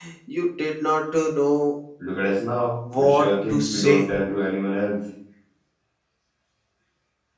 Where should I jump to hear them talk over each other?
2.9 s

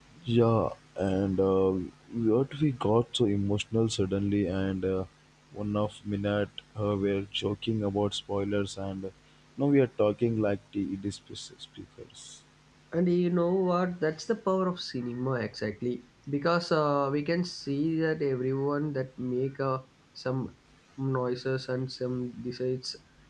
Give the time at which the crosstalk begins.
none

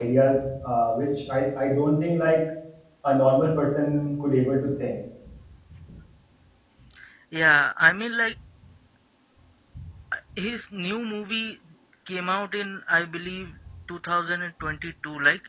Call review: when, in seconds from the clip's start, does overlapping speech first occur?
none

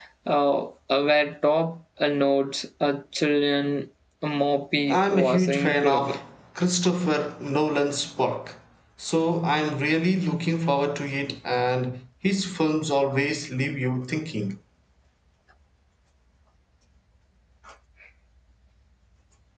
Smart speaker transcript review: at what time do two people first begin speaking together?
4.9 s

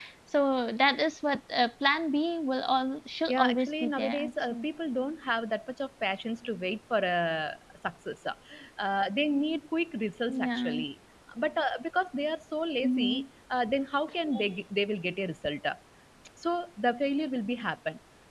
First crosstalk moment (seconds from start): 3.3 s

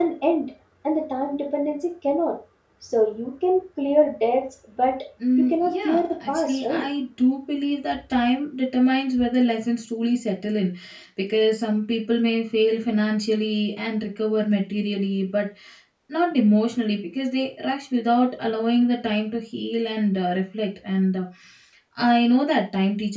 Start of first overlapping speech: 5.5 s

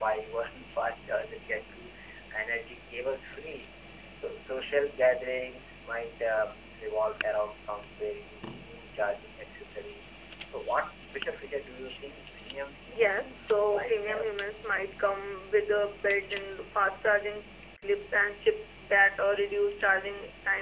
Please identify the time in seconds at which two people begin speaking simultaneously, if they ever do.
12.9 s

